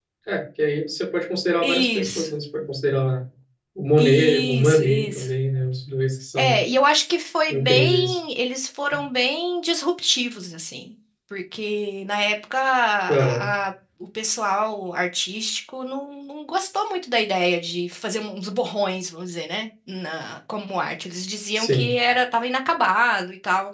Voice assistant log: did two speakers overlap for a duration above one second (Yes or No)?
Yes